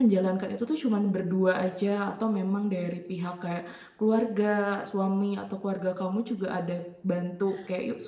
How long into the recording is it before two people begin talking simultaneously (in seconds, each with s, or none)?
none